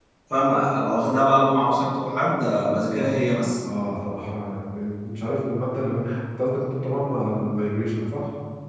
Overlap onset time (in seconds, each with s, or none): none